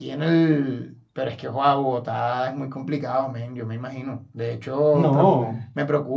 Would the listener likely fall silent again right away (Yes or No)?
Yes